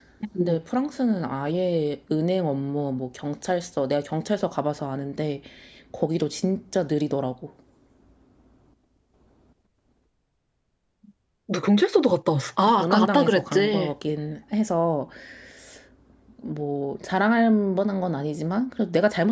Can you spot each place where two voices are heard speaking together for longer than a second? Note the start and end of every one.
12.6-13.9

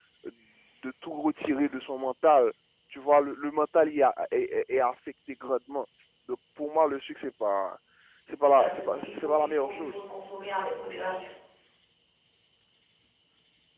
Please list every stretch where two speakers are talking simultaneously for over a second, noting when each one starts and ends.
8.4-9.9

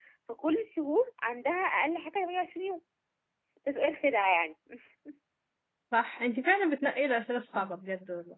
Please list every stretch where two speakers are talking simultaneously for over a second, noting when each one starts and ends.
none

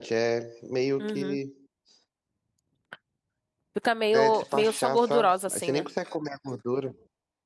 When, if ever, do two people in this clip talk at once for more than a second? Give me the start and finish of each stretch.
4.1-5.8

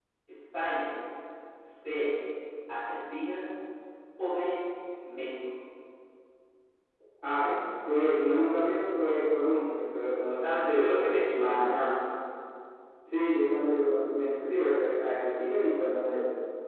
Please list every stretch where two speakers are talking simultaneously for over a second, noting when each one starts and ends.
none

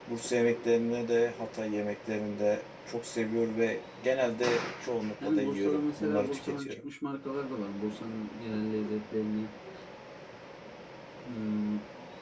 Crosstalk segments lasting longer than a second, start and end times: 5.2-6.8

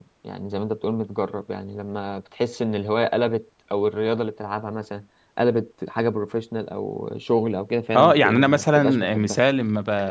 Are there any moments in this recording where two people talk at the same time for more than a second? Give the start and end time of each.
8.0-9.4

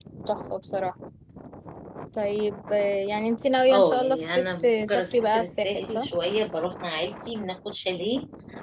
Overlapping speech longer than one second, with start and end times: 3.7-6.1

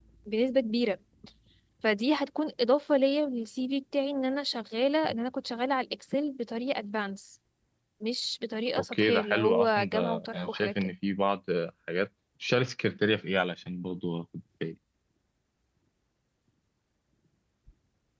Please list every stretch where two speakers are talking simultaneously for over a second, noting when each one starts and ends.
8.8-10.7

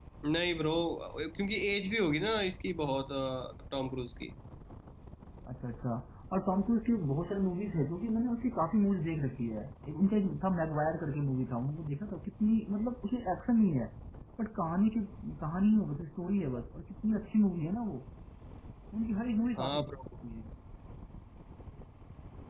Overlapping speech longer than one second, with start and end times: none

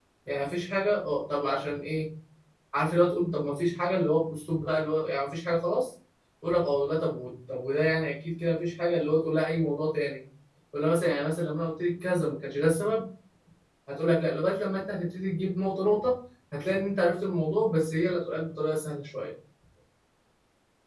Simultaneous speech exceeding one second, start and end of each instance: none

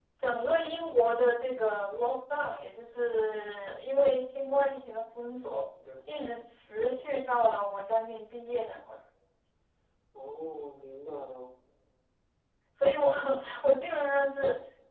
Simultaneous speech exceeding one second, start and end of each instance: none

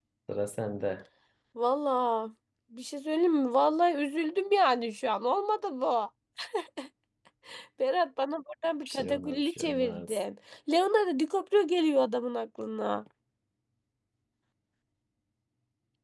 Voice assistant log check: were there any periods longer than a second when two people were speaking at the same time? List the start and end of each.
8.9-10.2

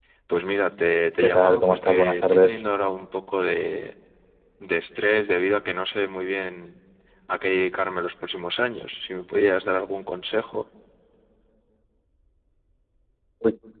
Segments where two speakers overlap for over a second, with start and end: 1.2-2.6

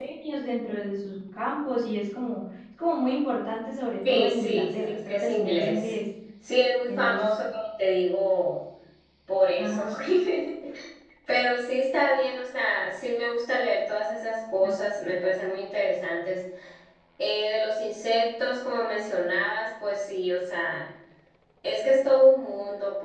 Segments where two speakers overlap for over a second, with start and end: 4.1-5.8

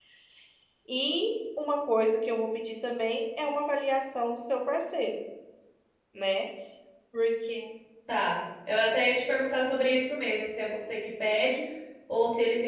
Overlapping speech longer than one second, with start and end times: none

